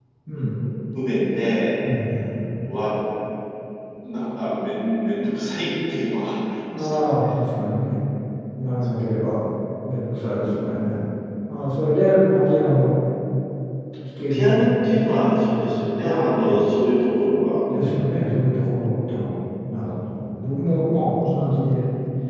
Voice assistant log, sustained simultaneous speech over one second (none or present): present